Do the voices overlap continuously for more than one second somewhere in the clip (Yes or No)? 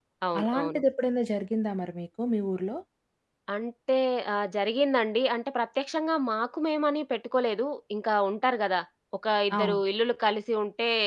No